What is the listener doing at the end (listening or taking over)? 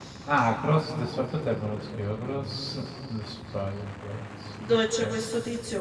taking over